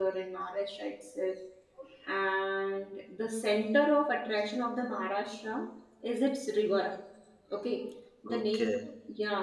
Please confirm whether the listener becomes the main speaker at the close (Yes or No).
No